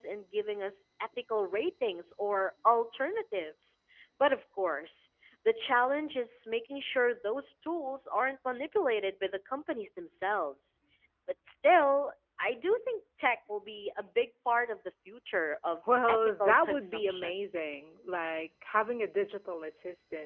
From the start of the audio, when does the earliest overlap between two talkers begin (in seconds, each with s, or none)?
15.8 s